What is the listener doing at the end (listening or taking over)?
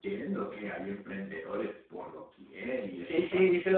taking over